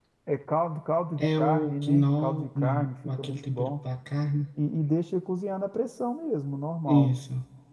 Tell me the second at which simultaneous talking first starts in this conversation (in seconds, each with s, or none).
1.2 s